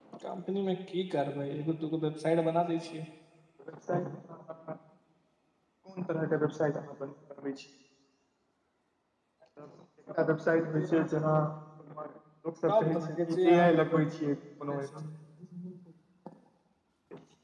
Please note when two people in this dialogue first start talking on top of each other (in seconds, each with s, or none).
12.7 s